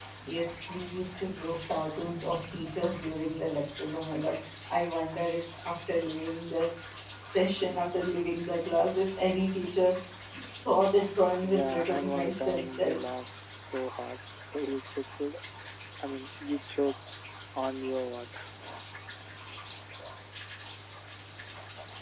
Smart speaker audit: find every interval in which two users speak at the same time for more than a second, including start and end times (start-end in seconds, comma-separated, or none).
11.4-13.0